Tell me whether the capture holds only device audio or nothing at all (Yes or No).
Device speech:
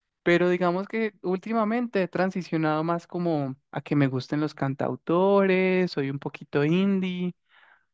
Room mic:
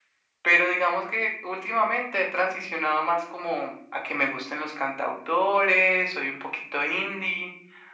Yes